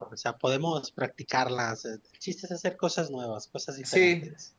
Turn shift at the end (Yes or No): Yes